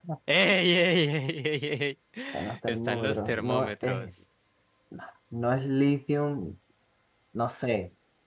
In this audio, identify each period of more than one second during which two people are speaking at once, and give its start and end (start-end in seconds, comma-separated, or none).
2.3-4.1